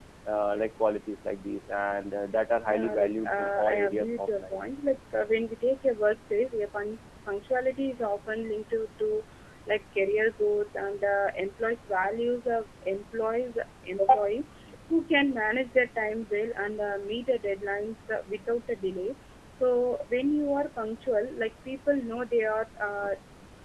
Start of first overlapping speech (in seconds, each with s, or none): 2.7 s